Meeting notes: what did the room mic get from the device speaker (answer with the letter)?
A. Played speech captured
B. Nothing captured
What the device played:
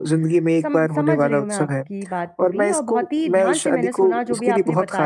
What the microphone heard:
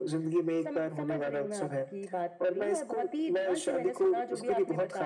A